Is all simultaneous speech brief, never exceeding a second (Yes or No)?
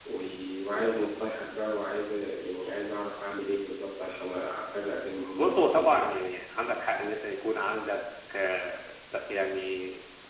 Yes